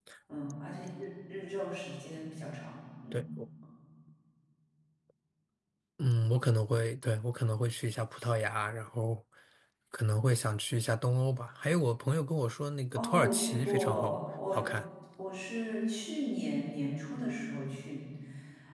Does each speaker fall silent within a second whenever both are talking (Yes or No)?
No